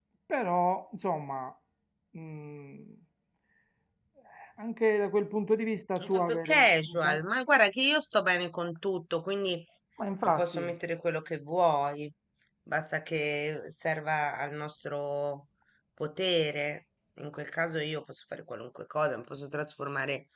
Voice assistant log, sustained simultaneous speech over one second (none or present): present